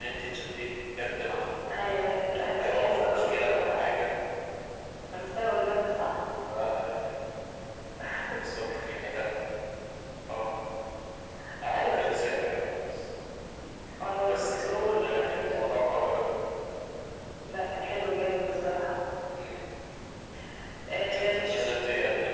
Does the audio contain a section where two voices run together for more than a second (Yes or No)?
Yes